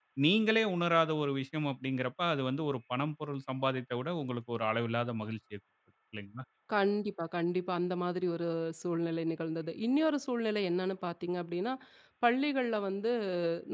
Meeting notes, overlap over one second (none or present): none